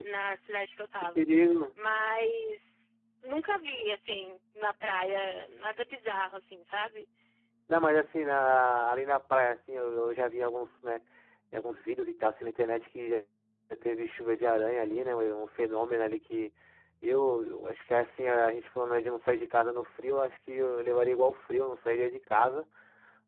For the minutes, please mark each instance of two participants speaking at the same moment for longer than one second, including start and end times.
none

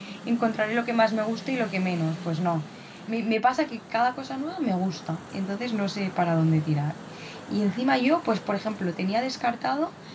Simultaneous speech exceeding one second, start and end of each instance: none

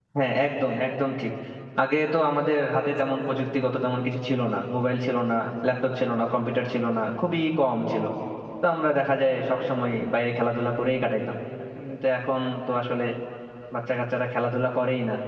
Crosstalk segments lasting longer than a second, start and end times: none

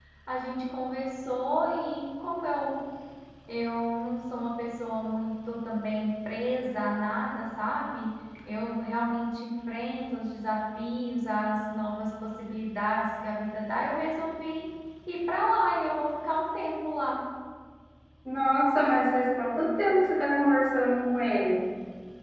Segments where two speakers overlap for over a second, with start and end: none

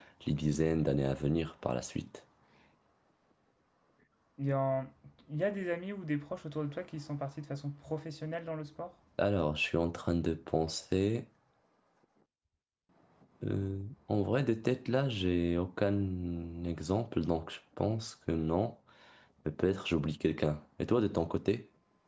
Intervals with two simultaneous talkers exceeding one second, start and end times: none

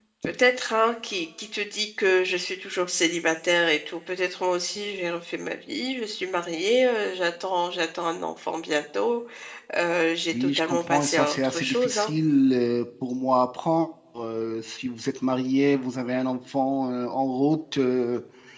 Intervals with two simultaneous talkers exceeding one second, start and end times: 10.3-12.1

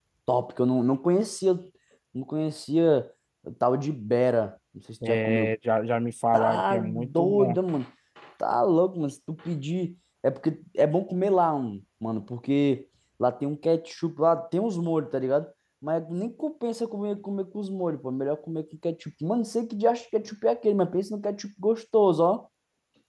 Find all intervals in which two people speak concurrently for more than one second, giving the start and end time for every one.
6.3-7.6

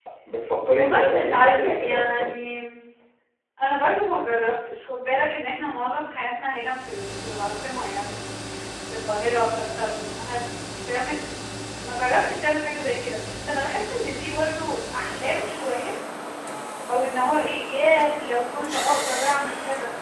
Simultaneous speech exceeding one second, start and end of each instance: 0.7-2.3

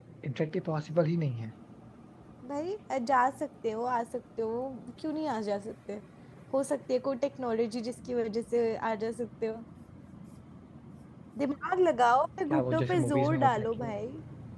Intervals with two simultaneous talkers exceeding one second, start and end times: 12.5-13.9

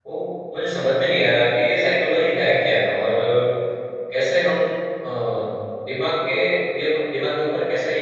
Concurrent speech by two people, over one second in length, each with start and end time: none

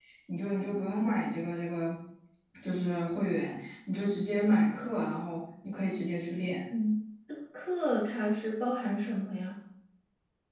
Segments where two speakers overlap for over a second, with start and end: none

